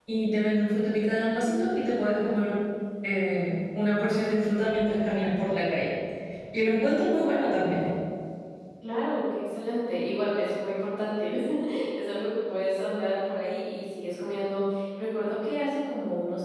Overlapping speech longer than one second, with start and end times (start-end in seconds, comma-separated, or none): none